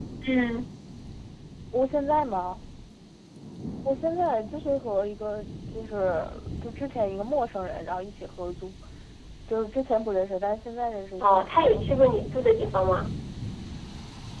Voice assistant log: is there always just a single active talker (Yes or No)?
No